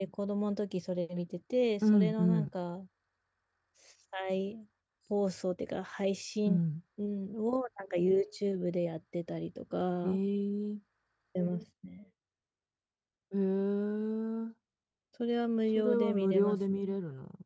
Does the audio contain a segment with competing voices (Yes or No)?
Yes